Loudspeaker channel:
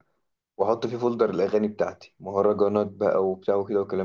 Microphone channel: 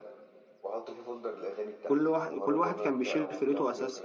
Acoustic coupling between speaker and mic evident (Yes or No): Yes